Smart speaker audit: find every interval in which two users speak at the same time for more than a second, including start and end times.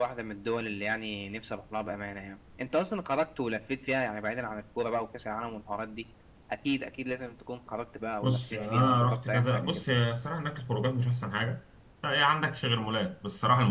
8.2-9.8

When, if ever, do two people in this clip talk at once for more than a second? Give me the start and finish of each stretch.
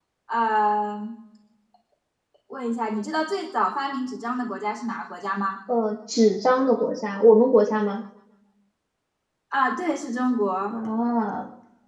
none

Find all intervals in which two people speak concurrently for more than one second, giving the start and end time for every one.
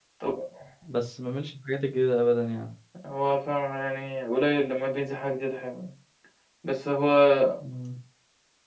none

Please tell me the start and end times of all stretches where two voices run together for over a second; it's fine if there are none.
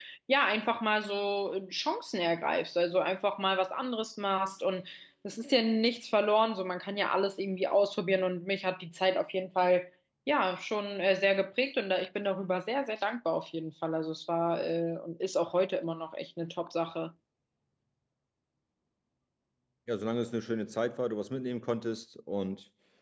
none

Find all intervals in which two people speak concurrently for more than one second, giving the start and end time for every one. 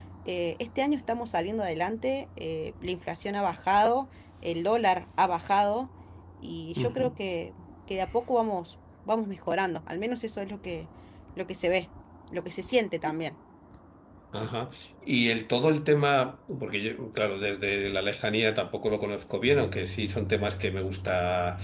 none

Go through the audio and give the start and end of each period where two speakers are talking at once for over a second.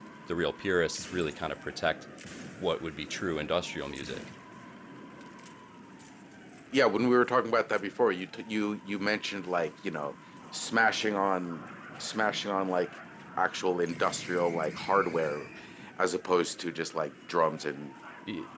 none

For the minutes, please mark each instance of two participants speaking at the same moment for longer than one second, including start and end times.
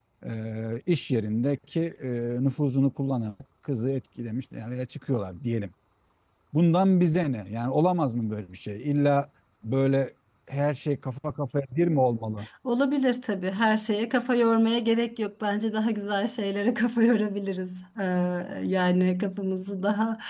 none

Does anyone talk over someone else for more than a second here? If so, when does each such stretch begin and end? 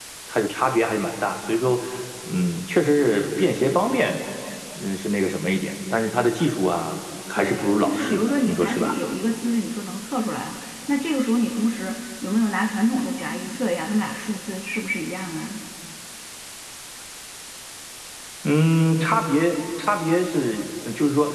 7.4-8.9

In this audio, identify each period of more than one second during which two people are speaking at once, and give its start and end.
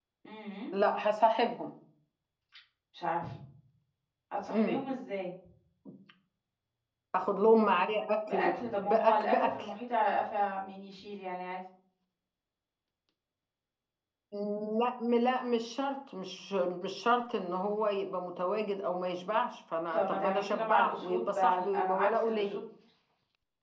8.3-9.7, 19.9-22.6

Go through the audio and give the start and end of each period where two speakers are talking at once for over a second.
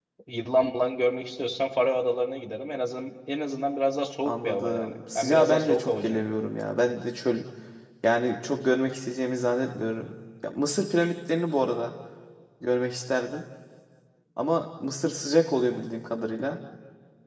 4.2-6.2

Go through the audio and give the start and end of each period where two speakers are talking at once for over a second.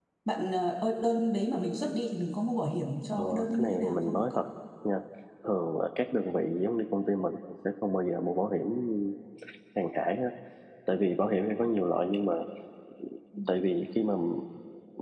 3.2-4.4

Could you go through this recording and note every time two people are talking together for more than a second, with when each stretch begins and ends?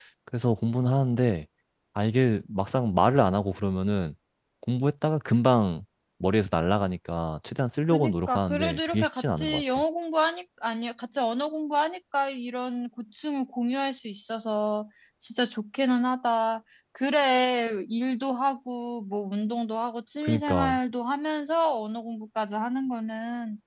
7.9-9.8

